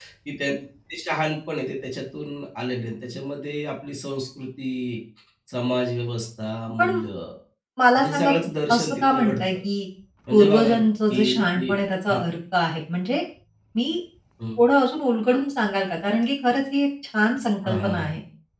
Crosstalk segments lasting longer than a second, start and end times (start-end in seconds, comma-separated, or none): 8.0-9.5, 10.3-11.7